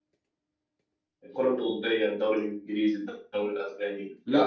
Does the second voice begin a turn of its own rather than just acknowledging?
Yes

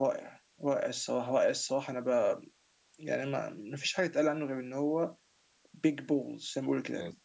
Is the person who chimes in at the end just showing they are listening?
No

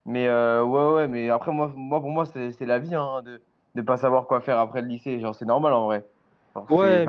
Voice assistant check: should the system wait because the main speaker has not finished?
No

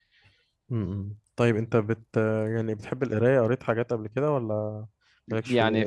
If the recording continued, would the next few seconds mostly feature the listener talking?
Yes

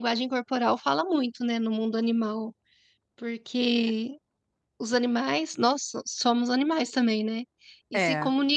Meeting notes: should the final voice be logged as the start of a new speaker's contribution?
No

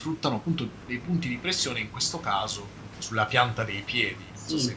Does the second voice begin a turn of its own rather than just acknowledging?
Yes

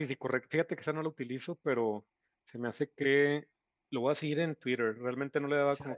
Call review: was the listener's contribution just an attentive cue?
Yes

